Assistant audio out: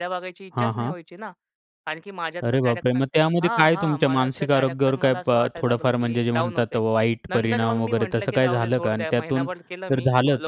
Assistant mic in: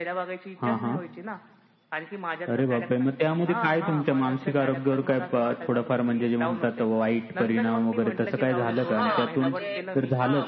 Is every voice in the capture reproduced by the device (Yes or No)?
No